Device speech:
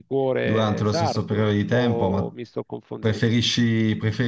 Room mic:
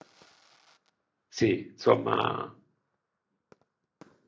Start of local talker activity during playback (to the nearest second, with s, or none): 1 s